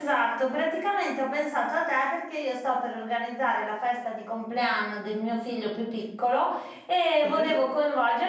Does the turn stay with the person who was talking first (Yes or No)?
Yes